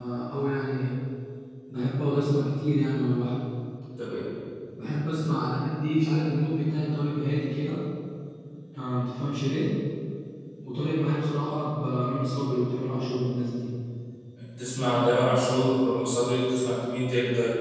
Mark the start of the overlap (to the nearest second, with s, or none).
none